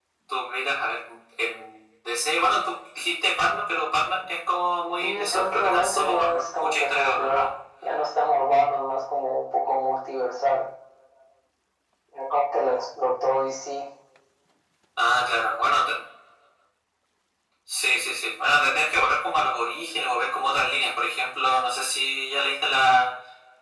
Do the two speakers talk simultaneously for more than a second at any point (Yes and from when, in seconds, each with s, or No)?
Yes, from 5.0 s